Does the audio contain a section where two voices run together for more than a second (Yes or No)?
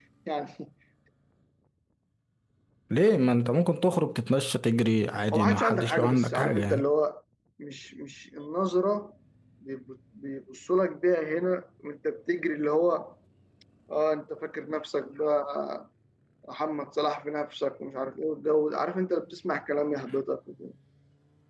Yes